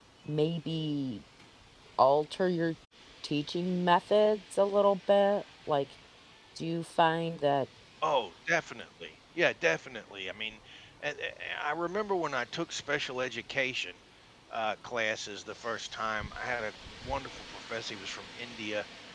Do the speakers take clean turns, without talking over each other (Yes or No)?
Yes